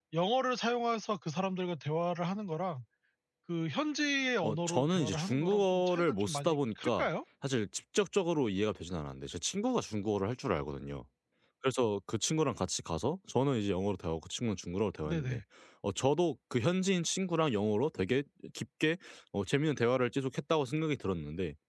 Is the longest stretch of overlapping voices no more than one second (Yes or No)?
No